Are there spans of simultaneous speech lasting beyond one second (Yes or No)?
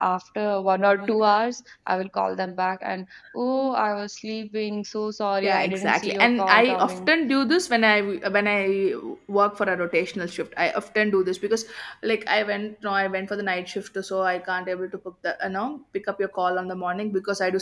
Yes